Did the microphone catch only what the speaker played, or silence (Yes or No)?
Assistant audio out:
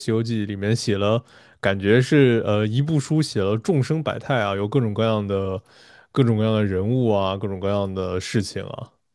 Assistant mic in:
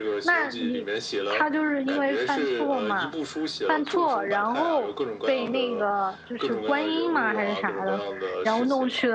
No